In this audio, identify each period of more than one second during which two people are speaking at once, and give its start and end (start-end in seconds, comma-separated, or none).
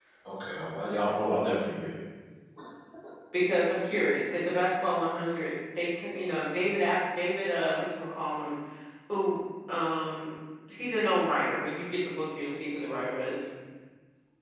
none